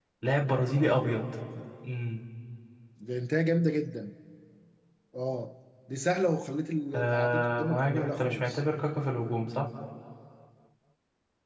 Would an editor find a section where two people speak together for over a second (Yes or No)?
Yes